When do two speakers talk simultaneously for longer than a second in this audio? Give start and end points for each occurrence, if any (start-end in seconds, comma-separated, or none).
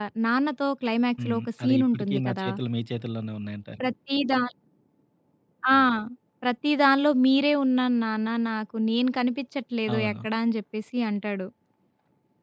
1.2-2.5